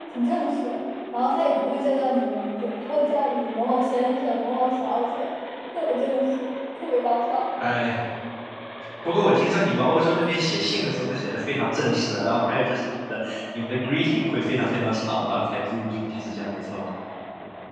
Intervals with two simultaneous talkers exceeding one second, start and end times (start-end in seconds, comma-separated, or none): none